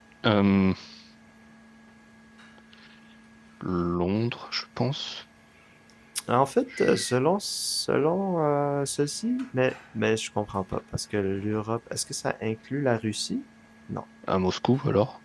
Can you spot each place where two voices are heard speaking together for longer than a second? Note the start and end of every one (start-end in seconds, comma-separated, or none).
none